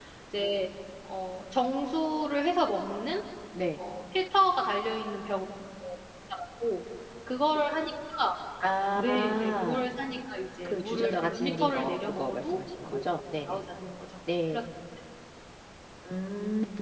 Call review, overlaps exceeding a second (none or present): present